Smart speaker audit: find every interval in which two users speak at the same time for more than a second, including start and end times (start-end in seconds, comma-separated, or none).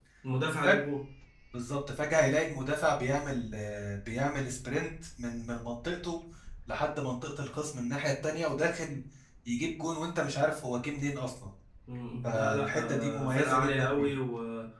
12.3-14.1